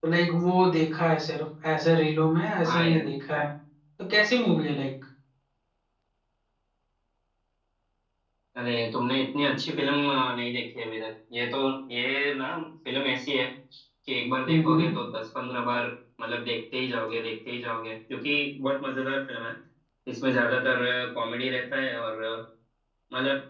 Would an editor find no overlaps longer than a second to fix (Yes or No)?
Yes